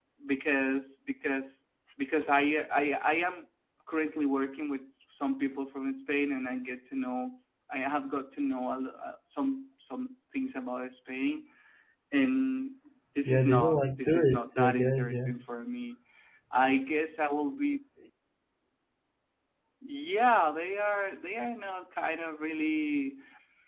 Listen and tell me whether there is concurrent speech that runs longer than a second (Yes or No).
Yes